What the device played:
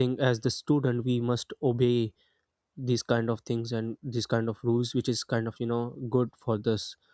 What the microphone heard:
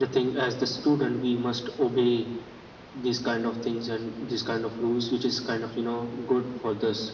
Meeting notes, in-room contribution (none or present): none